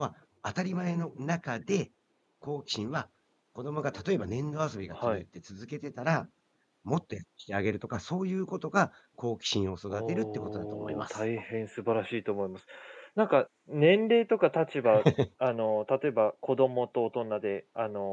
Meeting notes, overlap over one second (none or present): present